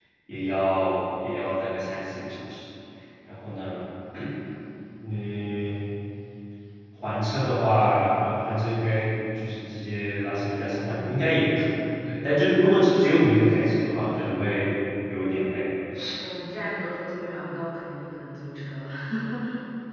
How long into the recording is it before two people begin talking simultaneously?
none

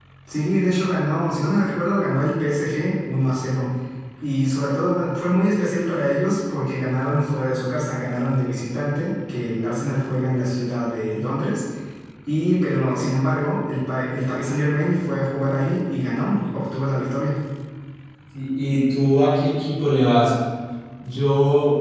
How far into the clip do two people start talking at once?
none

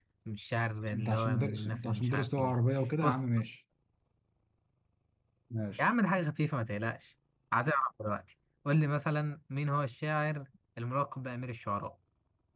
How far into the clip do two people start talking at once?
0.9 s

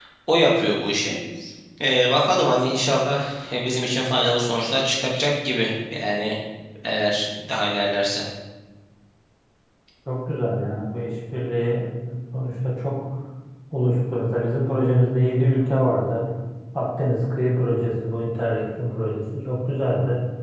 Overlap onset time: none

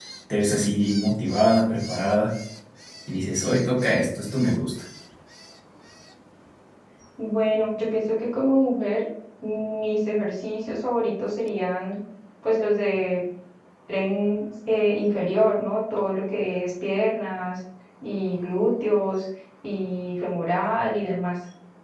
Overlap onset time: none

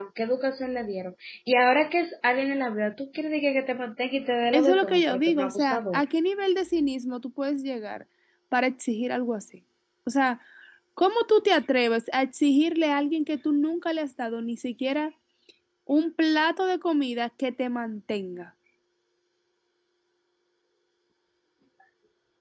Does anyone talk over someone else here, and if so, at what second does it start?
4.5 s

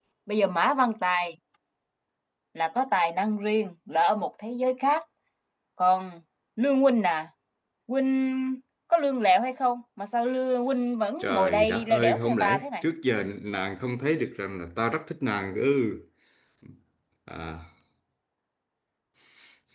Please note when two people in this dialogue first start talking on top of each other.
11.2 s

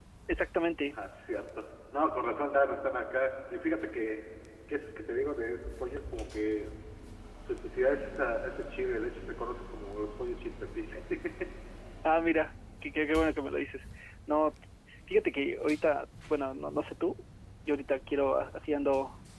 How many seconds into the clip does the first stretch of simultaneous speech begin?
none

